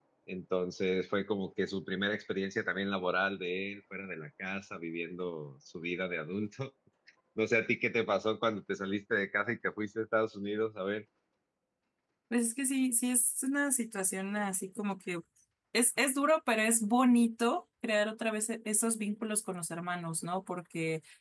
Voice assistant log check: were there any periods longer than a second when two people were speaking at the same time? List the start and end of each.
none

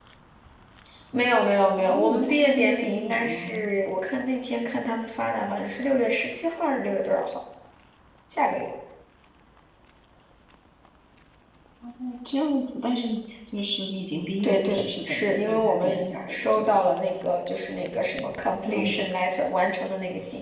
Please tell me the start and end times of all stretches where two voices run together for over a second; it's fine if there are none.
1.8-3.7, 14.4-16.8

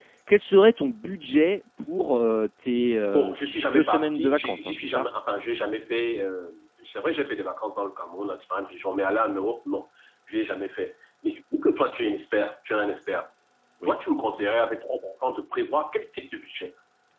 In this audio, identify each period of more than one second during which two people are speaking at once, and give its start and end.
3.7-5.1

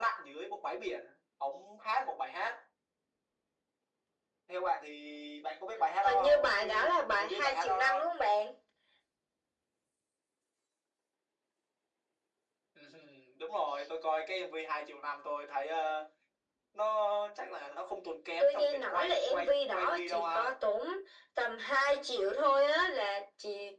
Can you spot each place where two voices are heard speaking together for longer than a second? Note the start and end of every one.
6.0-8.1, 18.4-20.5

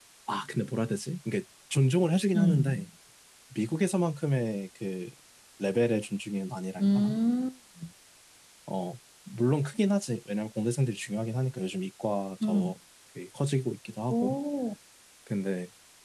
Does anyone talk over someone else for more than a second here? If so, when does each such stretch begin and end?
none

